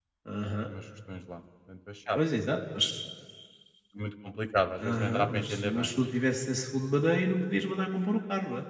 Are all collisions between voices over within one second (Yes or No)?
No